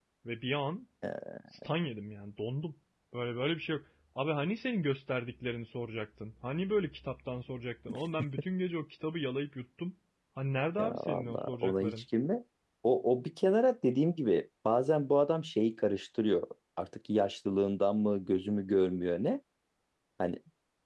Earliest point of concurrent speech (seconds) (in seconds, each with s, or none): 10.8 s